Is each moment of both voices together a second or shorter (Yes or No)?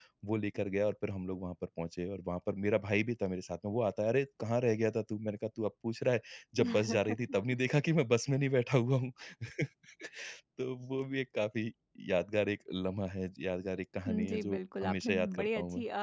No